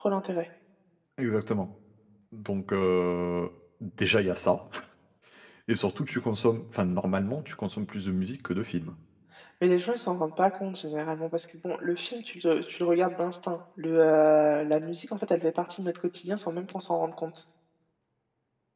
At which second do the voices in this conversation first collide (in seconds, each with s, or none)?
none